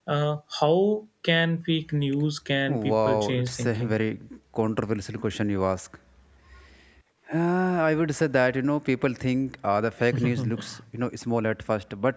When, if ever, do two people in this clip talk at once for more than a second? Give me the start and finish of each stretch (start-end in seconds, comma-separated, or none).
2.7-4.0